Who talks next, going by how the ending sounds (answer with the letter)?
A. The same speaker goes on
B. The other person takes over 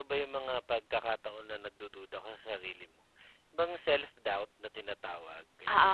B